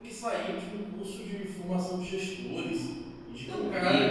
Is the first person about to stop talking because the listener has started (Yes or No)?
Yes